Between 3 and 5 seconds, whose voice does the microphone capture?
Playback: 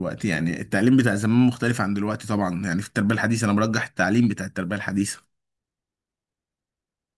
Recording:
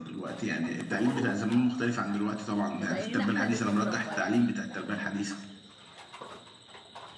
both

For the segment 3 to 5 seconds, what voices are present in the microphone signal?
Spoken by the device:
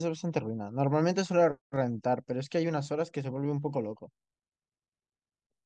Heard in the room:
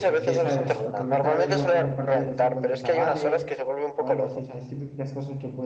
both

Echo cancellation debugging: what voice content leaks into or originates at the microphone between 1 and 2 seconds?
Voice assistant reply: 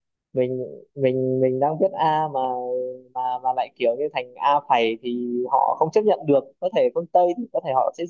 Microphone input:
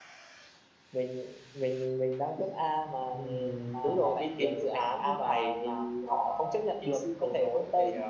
echo only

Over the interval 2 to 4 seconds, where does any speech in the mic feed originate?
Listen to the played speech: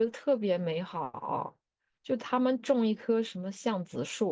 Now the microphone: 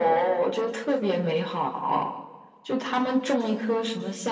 echo only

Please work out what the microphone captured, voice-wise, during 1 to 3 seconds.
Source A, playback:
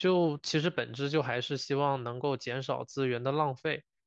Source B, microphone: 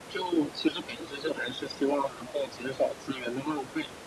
echo only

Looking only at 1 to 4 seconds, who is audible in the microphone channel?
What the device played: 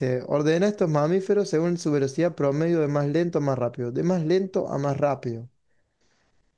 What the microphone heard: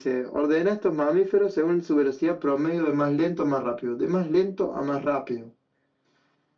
echo only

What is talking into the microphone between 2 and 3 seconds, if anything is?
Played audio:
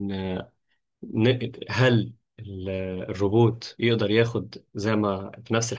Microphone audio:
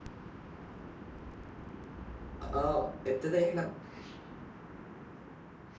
user only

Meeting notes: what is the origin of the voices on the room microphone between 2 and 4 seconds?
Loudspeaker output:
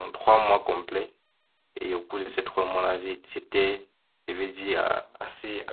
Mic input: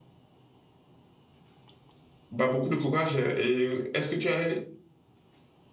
user only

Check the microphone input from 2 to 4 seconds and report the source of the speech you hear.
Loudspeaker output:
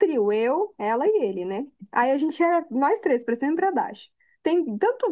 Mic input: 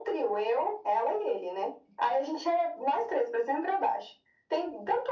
echo only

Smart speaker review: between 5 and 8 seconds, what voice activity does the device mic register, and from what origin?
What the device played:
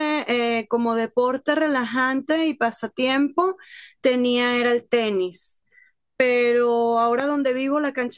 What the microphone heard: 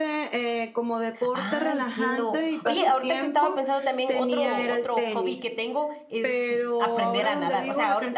both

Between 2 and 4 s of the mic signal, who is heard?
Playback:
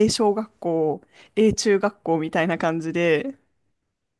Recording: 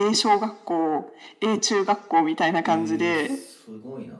both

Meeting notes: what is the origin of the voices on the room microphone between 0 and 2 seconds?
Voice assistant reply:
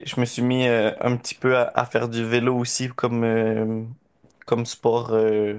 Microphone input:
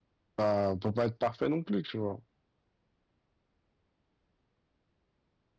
user only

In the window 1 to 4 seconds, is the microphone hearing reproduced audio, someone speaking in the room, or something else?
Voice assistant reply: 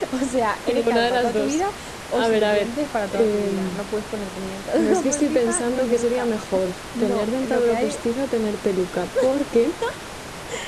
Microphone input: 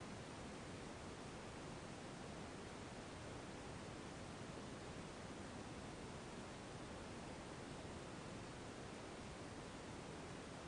neither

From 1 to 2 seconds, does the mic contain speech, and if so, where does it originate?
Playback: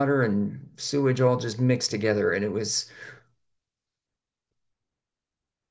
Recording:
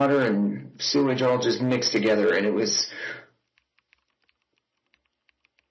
echo only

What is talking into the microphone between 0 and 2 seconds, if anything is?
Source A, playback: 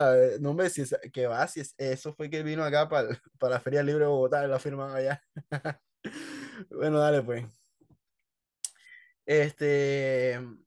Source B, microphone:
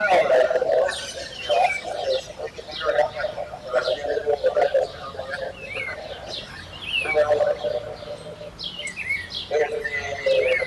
echo only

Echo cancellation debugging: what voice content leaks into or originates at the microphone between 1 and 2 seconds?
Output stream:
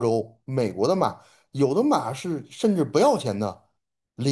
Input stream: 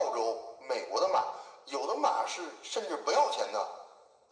echo only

